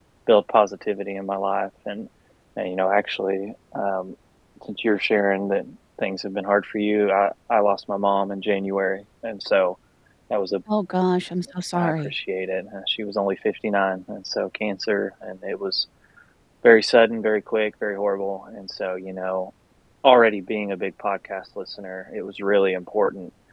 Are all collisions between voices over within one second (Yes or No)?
Yes